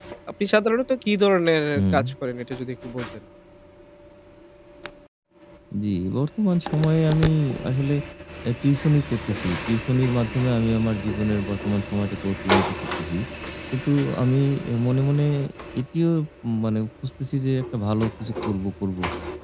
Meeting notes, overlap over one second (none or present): none